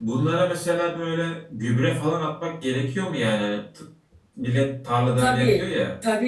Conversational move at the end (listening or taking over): taking over